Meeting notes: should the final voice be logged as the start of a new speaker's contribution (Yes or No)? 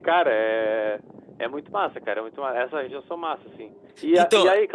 No